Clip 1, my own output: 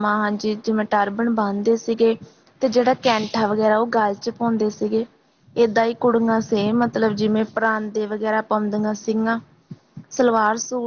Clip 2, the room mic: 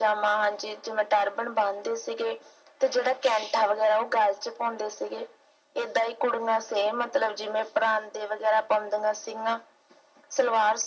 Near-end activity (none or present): none